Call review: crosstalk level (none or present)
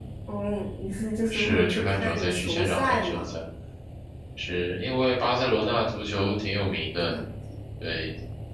present